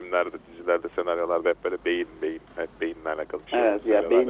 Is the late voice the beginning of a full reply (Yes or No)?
Yes